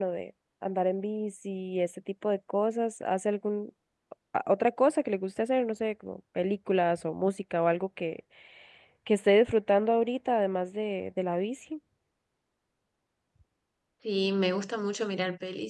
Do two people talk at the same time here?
No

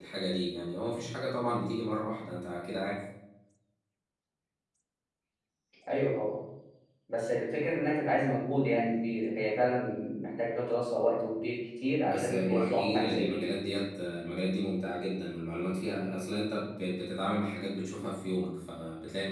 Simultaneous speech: Yes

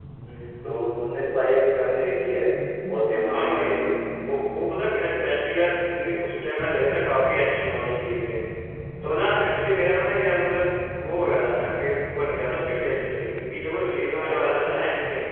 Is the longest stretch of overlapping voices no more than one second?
Yes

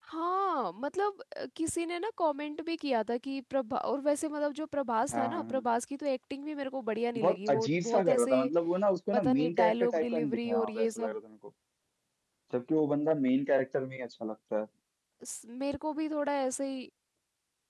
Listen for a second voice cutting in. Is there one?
Yes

